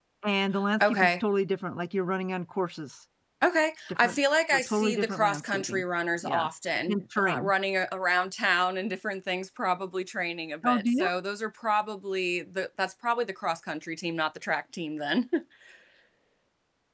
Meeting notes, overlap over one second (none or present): present